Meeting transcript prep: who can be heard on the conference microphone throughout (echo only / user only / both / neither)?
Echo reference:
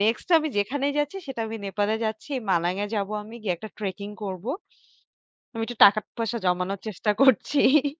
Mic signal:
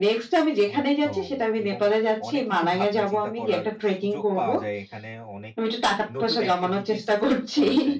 both